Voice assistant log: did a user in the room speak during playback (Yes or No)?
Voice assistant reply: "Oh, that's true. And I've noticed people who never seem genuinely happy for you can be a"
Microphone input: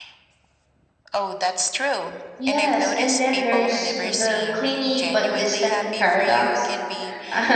Yes